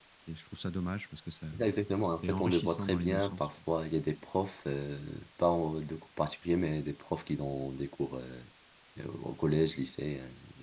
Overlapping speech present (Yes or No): Yes